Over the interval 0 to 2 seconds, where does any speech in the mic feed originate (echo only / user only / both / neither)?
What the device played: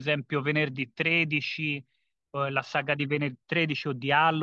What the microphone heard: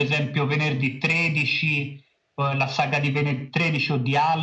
echo only